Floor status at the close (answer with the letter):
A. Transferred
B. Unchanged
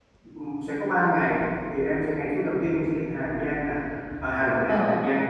B